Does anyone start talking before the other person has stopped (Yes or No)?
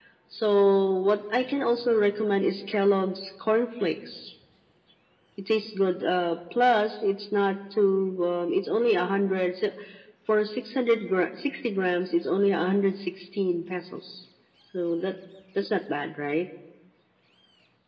No